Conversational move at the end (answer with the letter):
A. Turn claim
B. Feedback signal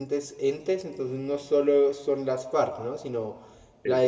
B